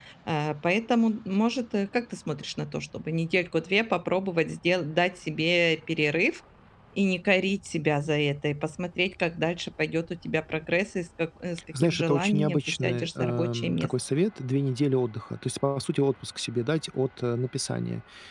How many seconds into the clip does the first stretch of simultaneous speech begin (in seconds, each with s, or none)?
11.7 s